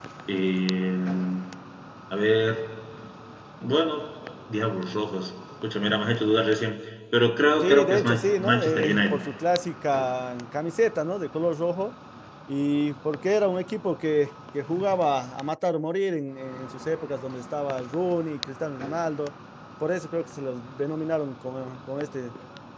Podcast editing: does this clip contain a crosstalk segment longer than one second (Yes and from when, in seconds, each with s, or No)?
Yes, from 7.6 s